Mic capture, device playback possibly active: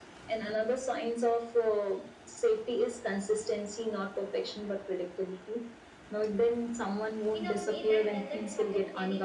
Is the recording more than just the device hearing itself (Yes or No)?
Yes